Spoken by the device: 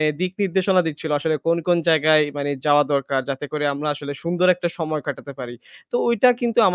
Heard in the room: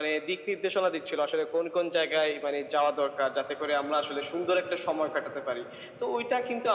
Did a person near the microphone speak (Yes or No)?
No